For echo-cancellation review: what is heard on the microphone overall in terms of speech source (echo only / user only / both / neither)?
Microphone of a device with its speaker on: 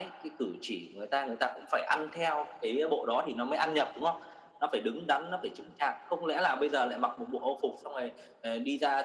echo only